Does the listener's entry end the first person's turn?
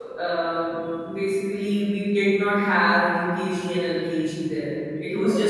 No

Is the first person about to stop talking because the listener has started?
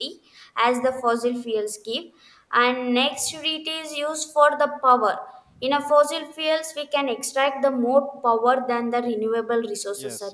Yes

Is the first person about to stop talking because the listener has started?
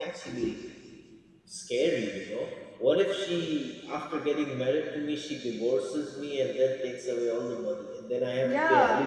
Yes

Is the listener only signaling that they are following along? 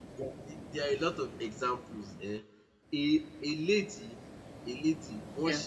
Yes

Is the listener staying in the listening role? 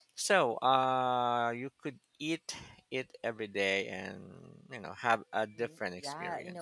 No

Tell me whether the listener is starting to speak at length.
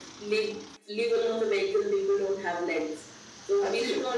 No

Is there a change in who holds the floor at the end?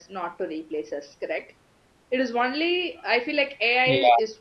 No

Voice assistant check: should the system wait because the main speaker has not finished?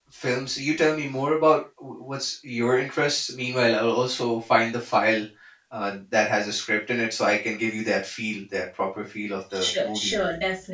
No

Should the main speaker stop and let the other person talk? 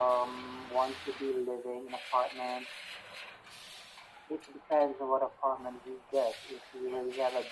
No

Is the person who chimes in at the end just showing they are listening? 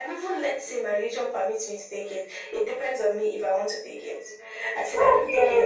Yes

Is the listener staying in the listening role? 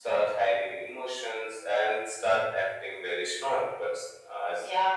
No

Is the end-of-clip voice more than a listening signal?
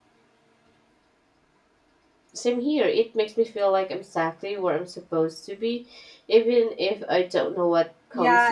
Yes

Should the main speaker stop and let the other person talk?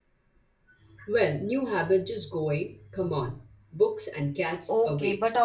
Yes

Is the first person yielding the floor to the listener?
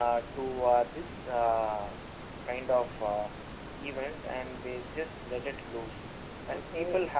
No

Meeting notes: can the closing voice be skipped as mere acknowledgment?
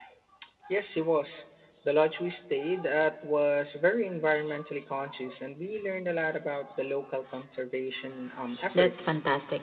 No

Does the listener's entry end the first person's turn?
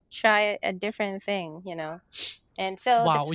Yes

